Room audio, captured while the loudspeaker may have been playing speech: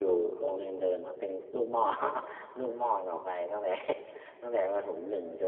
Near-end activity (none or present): none